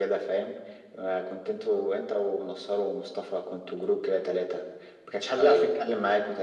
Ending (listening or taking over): listening